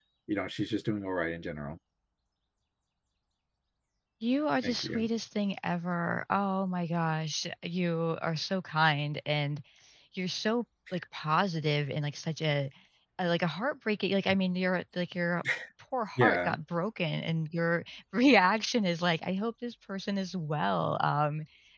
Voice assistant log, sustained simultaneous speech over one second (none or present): none